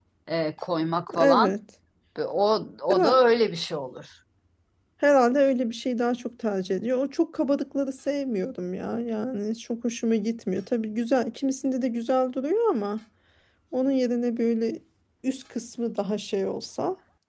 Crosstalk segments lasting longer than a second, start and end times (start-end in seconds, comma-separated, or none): none